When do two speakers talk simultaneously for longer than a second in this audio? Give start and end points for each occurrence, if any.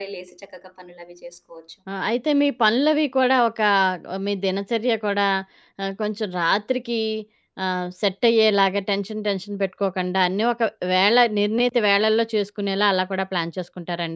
none

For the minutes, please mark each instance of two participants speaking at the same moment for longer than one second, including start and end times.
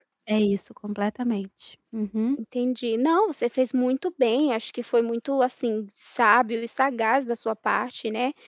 none

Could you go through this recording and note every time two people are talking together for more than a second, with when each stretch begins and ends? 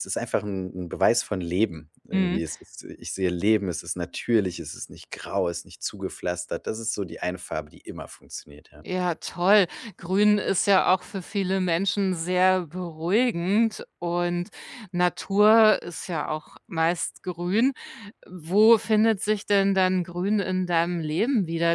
none

